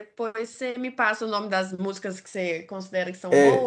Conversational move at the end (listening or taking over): taking over